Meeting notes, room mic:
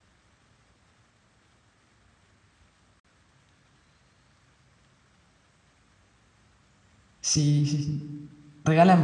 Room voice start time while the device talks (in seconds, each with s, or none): 7.2 s